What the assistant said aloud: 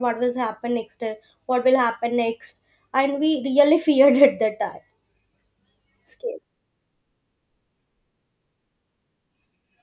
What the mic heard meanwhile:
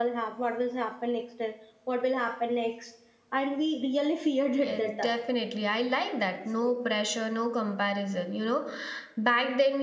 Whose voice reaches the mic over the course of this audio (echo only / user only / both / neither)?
both